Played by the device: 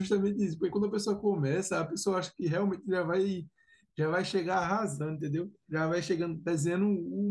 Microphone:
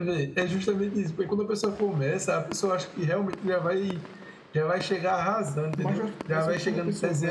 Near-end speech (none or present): present